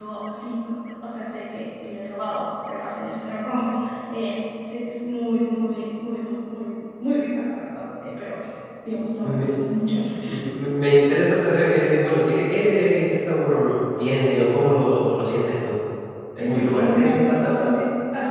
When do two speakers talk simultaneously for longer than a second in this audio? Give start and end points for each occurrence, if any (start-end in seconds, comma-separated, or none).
16.4-17.7